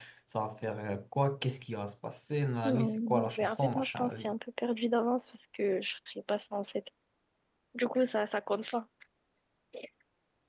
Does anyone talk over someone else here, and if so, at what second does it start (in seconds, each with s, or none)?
2.6 s